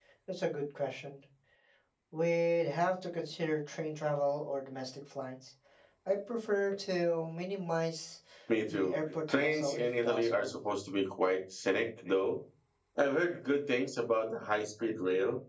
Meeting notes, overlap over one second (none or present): present